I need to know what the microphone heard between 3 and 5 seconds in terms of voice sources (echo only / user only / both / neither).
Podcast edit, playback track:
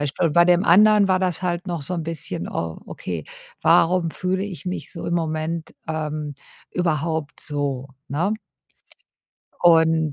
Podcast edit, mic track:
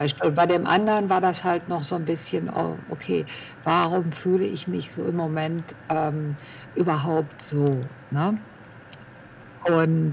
echo only